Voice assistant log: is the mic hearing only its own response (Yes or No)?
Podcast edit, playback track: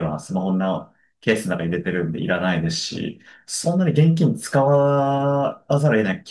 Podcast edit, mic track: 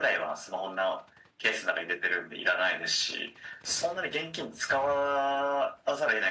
Yes